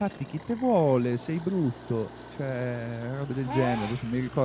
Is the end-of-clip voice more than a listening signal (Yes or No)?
No